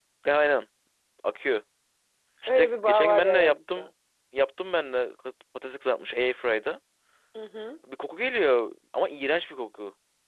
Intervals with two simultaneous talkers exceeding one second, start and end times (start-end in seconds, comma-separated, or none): 2.5-3.9